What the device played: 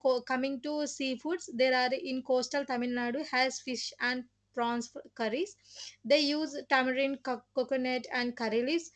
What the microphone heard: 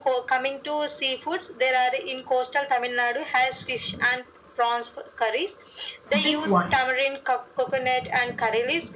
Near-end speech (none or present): present